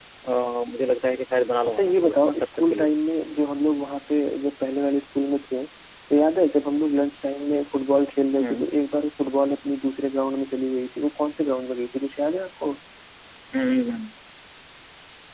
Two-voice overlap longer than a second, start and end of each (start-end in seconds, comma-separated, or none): 1.7-2.9